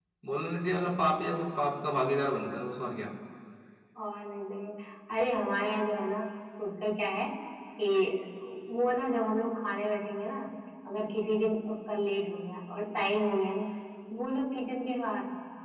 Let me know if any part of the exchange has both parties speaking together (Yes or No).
No